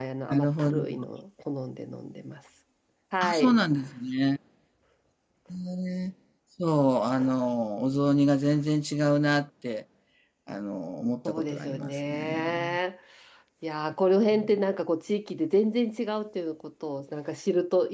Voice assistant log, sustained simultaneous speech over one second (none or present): present